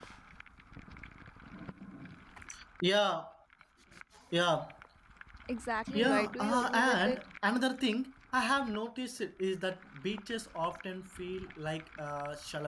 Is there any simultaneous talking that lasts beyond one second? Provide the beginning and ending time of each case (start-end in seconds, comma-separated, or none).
5.9-7.2